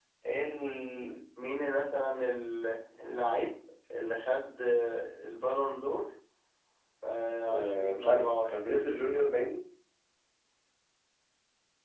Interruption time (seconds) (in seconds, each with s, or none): 7.5 s